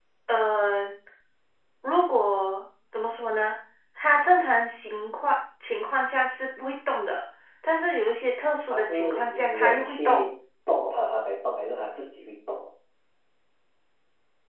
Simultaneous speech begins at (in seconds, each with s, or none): 8.7 s